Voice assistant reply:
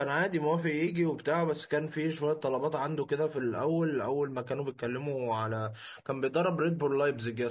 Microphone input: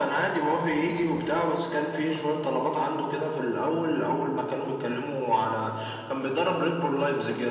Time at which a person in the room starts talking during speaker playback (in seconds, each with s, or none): none